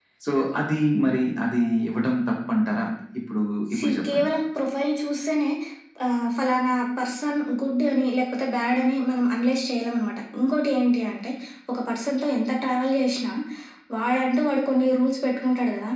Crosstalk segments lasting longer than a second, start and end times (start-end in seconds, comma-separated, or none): none